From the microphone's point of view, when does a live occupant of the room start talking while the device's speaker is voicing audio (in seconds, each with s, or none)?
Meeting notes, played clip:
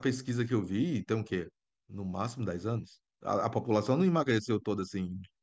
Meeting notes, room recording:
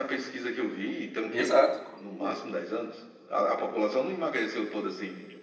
1.3 s